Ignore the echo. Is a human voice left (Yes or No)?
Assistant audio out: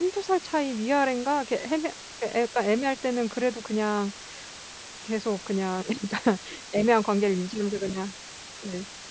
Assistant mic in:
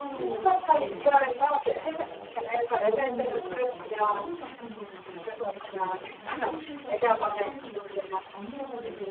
Yes